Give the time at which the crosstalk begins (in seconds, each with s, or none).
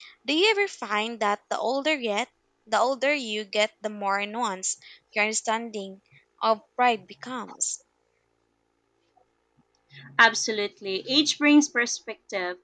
none